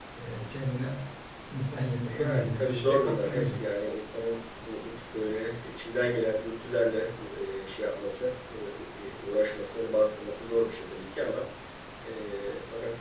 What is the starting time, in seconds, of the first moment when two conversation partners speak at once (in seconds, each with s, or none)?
2.1 s